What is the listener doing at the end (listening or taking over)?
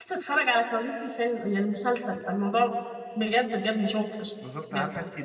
taking over